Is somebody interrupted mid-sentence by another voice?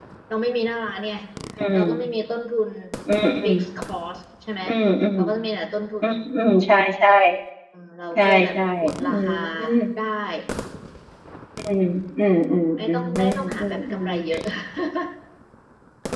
Yes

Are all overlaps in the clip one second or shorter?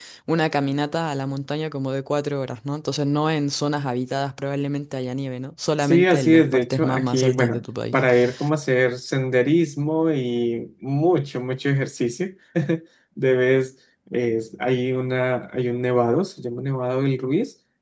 No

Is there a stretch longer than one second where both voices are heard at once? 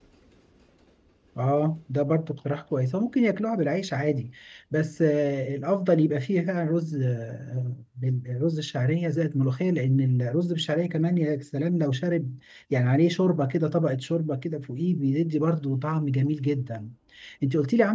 No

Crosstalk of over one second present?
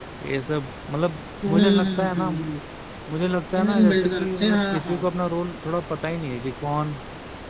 Yes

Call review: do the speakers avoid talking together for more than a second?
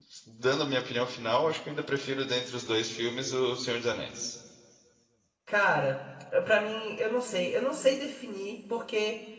Yes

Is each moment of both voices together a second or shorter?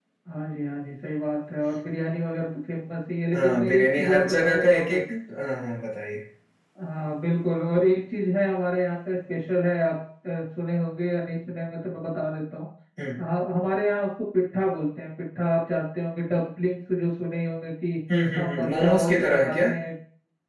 No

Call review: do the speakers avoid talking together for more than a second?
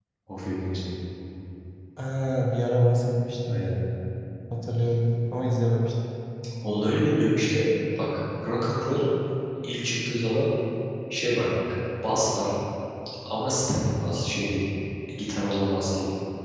Yes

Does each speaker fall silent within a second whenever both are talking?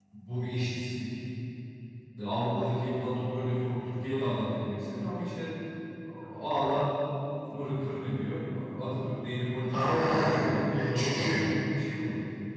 No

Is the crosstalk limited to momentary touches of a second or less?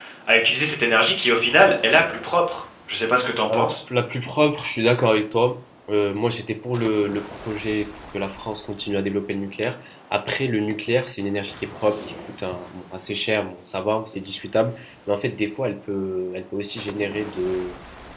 Yes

